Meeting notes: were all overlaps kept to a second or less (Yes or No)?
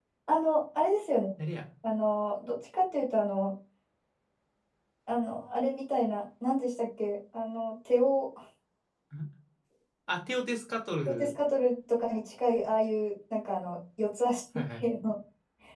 Yes